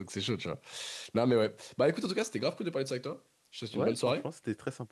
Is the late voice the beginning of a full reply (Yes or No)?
Yes